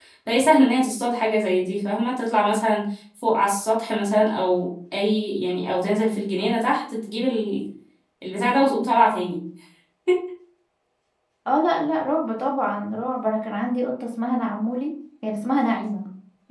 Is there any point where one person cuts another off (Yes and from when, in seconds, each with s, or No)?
No